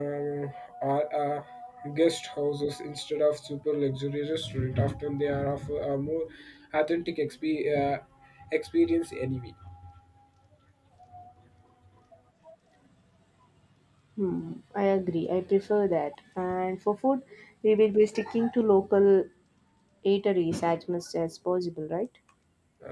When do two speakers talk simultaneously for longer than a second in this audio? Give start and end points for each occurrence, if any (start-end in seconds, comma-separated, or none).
none